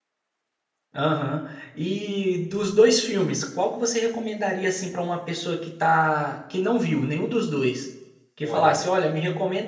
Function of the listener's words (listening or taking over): listening